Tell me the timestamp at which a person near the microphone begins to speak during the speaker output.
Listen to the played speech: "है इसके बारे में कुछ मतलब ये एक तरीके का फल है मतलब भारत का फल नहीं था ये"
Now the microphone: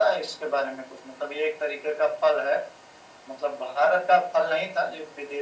none

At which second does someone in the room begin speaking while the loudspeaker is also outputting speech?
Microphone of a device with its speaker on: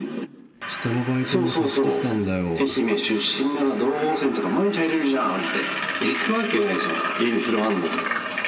0.7 s

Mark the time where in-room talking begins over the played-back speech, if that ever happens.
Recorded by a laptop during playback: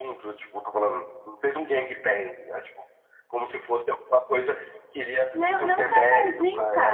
5.3 s

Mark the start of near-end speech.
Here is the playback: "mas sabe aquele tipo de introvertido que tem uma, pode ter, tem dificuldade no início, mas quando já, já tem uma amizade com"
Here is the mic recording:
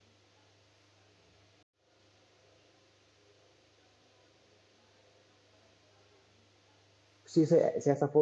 7.3 s

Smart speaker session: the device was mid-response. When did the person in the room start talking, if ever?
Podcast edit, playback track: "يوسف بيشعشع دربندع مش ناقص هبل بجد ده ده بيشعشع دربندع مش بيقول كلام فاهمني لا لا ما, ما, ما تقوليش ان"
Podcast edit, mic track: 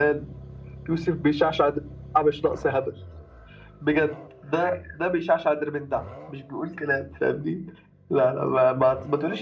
none

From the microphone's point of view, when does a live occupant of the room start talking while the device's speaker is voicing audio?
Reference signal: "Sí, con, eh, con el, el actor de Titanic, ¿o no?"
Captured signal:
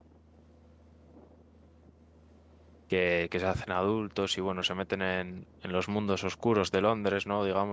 2.9 s

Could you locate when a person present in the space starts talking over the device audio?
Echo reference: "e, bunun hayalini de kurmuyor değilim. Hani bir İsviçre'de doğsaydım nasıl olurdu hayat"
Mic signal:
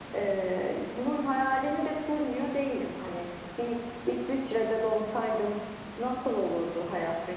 none

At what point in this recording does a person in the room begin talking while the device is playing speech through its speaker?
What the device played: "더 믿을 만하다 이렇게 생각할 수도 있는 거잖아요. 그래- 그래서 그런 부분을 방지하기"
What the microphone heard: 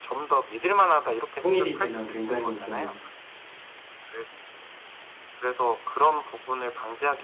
1.4 s

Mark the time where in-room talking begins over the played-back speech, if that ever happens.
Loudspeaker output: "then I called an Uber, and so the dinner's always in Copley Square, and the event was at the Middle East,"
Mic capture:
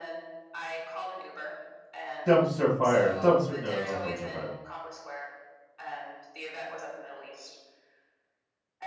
2.2 s

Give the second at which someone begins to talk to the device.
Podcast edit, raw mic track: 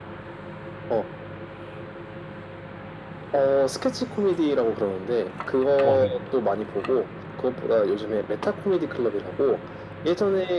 5.8 s

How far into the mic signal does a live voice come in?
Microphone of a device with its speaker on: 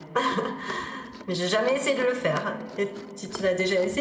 none

